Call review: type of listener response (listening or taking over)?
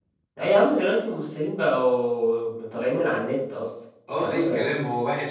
taking over